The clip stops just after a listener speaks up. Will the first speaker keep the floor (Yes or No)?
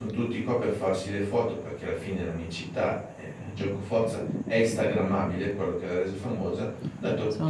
Yes